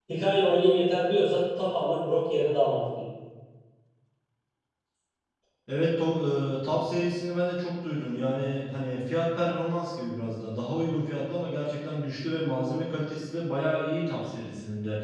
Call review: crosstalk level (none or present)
none